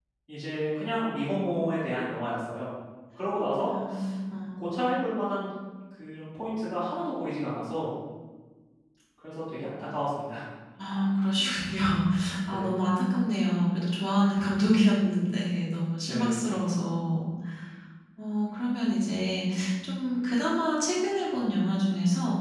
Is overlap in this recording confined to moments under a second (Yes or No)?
Yes